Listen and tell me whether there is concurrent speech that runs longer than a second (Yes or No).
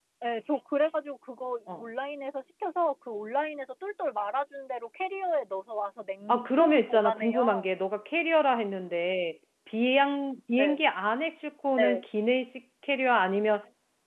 Yes